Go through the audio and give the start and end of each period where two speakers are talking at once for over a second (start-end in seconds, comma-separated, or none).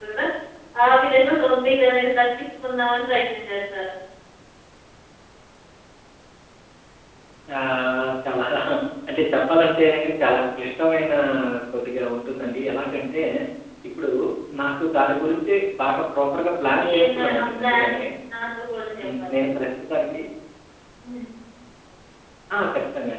16.3-18.0